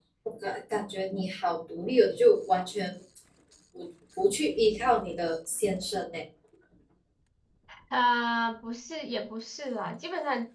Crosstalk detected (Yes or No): No